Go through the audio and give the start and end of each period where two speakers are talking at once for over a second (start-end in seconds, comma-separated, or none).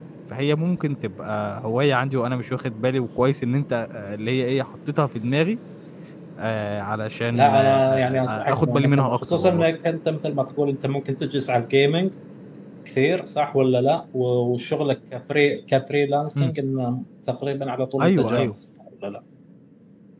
7.3-9.6